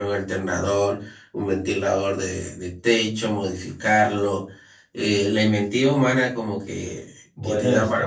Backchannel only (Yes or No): Yes